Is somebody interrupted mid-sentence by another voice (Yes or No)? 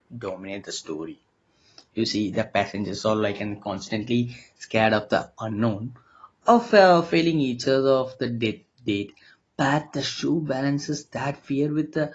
No